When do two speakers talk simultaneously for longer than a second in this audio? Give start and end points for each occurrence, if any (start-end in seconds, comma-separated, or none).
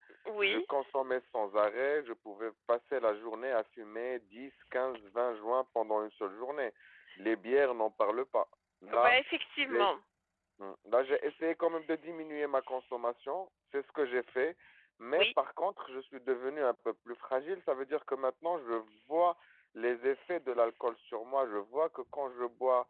none